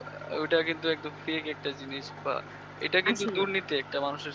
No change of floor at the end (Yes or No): Yes